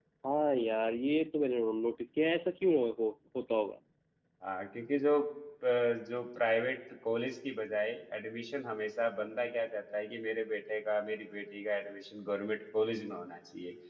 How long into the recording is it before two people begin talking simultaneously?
none

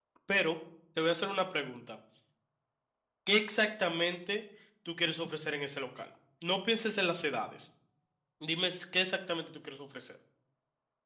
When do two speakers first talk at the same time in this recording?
none

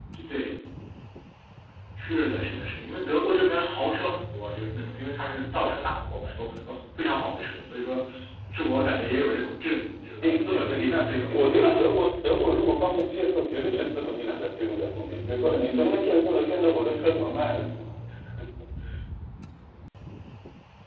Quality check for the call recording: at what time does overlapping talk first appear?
10.2 s

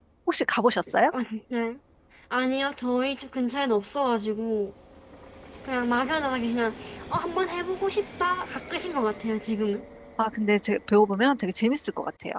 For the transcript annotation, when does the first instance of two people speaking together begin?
none

